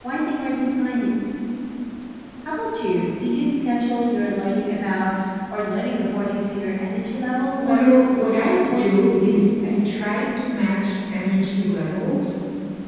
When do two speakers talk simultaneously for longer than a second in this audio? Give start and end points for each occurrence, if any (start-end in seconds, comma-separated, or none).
8.4-9.8